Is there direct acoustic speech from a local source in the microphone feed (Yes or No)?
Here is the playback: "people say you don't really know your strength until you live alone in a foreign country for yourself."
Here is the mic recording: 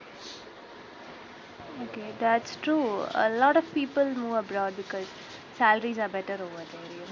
Yes